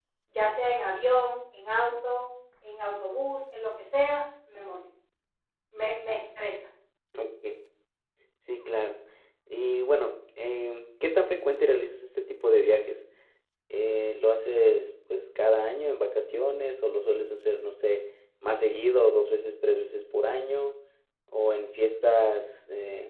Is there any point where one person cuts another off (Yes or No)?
No